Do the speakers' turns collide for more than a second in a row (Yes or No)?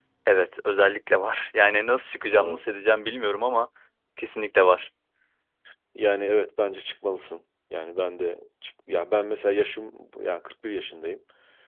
No